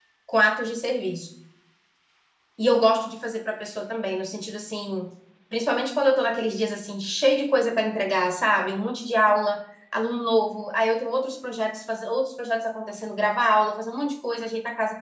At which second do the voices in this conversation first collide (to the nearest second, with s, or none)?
none